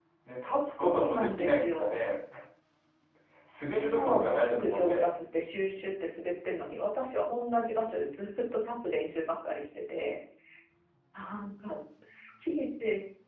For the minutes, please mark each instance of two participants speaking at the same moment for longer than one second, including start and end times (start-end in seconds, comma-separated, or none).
0.8-2.0, 3.7-5.1